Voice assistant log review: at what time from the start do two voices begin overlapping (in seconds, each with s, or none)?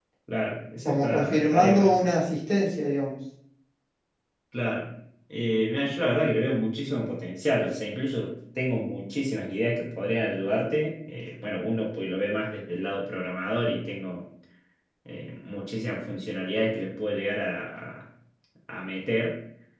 0.8 s